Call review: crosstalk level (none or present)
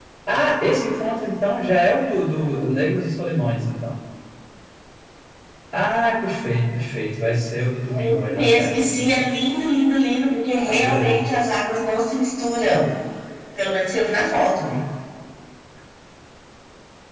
present